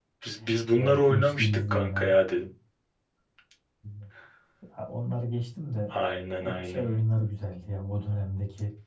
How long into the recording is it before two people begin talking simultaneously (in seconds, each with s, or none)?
0.7 s